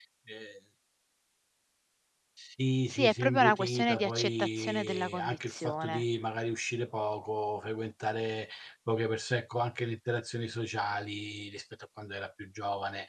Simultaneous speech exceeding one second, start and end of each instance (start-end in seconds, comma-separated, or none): 2.9-6.0